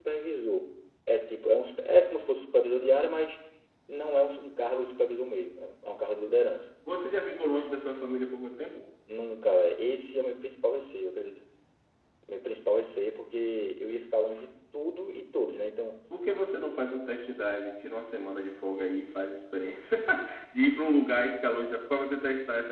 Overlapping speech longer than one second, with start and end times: none

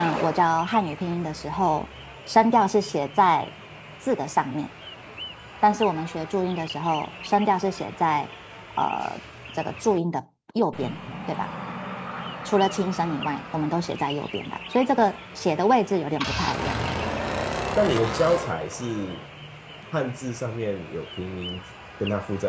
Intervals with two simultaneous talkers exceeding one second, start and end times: none

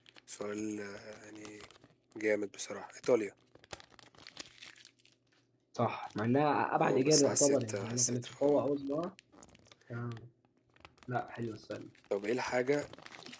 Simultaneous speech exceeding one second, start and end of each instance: 6.8-8.6

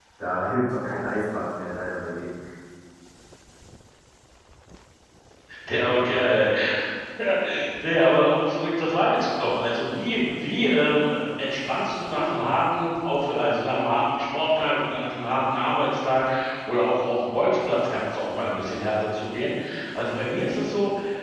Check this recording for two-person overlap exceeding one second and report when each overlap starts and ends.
none

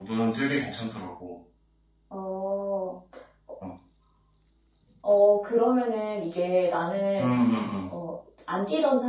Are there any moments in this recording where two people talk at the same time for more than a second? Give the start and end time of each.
none

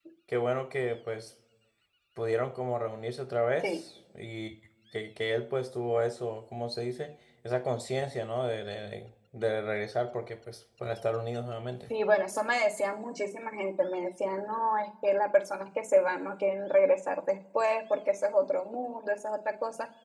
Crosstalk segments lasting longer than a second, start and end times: none

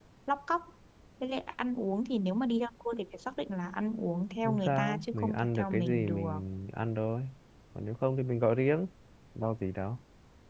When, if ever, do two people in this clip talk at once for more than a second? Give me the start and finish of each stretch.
4.4-6.3

